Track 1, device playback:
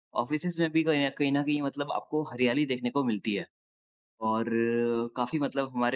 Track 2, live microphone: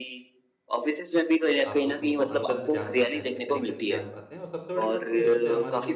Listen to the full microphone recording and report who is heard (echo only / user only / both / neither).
both